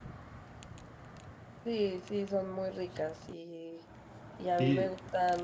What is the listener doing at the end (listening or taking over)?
listening